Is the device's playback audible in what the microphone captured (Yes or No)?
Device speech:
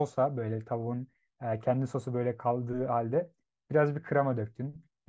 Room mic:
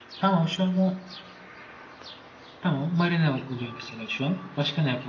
No